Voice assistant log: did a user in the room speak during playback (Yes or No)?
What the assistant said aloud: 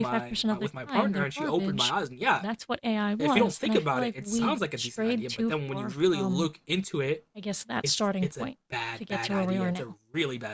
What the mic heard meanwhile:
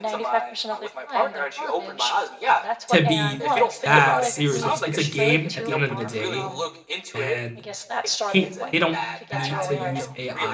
Yes